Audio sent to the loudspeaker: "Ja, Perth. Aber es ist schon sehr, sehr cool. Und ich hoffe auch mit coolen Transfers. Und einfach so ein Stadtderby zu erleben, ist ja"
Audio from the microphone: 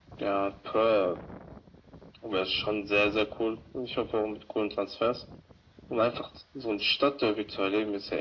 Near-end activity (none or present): none